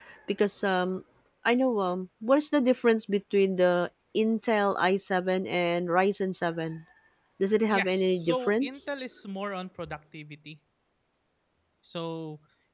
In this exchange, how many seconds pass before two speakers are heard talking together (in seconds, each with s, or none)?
7.7 s